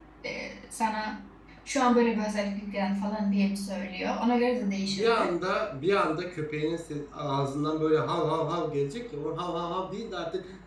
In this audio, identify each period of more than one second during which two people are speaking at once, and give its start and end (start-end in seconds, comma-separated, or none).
none